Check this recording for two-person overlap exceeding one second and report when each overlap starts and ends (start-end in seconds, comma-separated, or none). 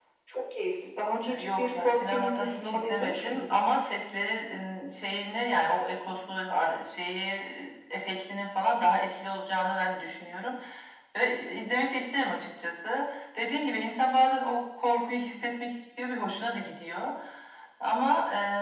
1.2-3.5